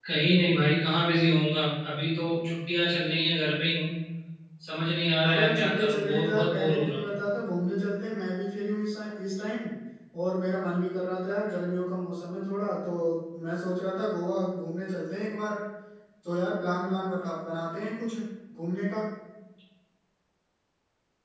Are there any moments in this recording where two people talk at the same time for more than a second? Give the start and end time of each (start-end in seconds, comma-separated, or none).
5.3-7.0